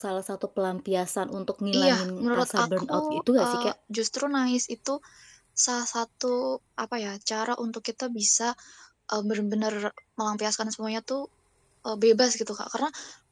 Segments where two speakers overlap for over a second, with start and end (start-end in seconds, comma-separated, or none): 1.7-3.7